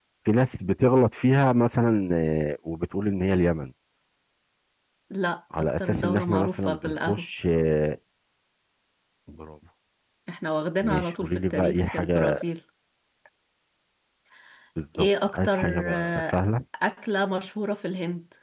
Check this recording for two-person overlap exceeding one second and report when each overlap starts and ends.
5.6-7.2, 10.8-12.4, 15.0-16.4

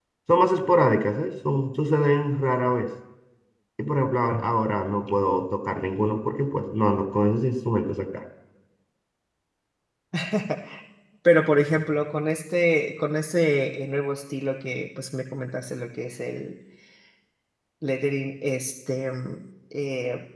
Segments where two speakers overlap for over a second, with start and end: none

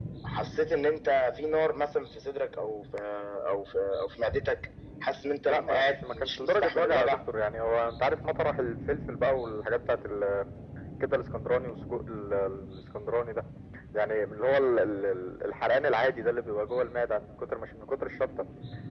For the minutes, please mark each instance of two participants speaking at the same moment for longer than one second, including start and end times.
5.5-7.2

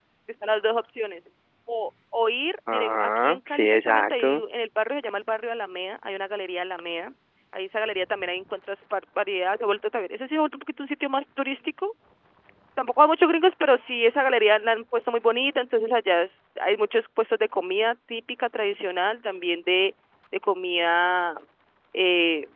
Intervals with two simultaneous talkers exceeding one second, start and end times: 2.7-4.4

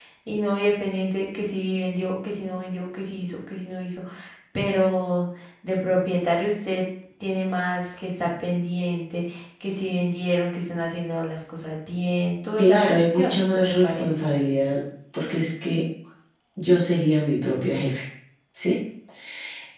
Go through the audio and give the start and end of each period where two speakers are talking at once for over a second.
12.6-14.1

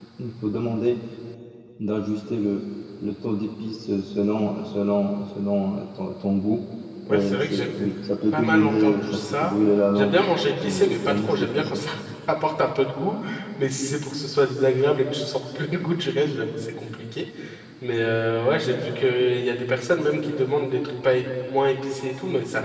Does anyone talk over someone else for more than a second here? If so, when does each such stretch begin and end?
8.3-9.6, 10.6-11.8

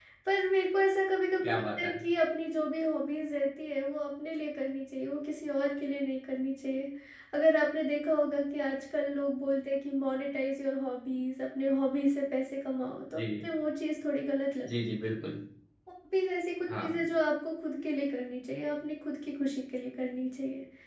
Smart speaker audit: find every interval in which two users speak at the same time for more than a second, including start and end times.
none

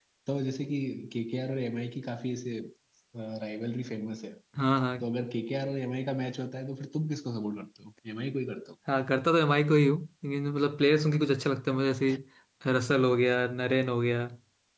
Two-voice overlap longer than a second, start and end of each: none

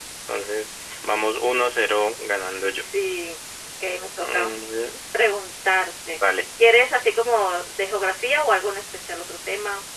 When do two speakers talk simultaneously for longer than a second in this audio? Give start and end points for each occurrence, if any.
none

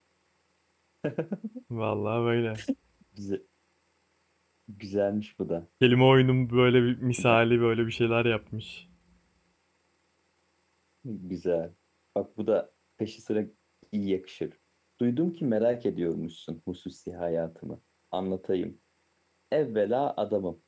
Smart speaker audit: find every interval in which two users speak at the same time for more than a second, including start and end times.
none

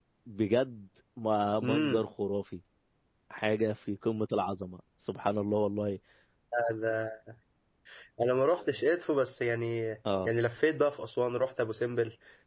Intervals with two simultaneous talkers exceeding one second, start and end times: none

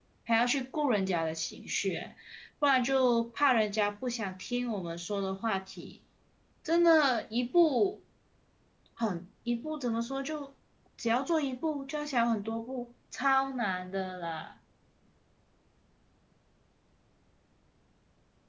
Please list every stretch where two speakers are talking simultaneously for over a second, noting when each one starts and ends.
none

